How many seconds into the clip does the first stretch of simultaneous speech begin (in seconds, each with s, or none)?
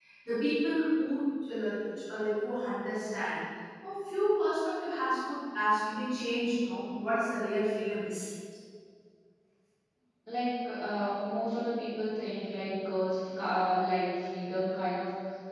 none